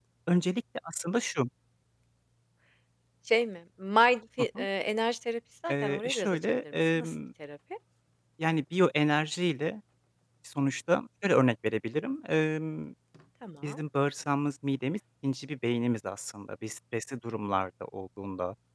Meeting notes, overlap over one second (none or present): present